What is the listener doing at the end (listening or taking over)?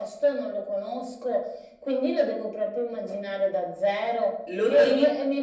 taking over